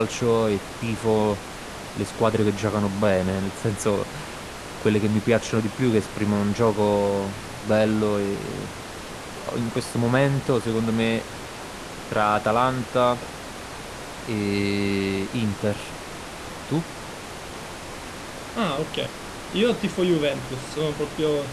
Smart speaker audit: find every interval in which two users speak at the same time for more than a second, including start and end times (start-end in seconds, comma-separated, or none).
none